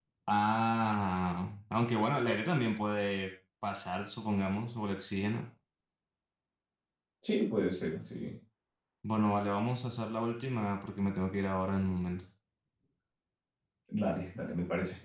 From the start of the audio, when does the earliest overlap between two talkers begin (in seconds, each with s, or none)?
none